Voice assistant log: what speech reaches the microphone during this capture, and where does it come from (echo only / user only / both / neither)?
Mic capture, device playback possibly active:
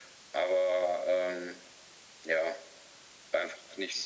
echo only